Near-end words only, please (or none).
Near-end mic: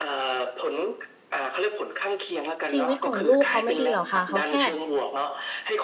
ชีวิตของลูกเขาไม่ดีหรอกค่ะ เขาแค่